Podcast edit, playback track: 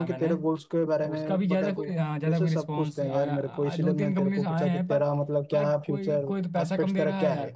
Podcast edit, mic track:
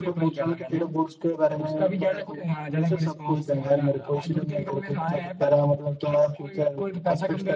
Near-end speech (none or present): none